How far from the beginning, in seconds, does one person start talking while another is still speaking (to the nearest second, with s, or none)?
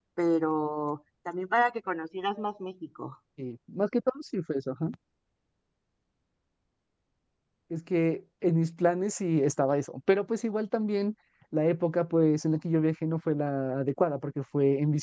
none